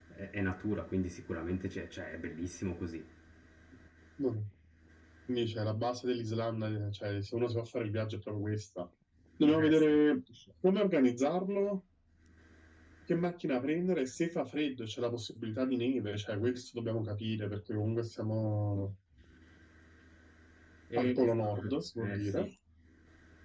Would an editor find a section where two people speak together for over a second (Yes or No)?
Yes